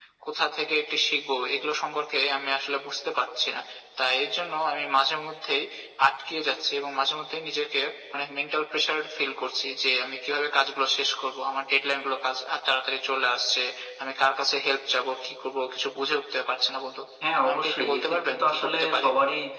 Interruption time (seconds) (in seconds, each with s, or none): 17.2 s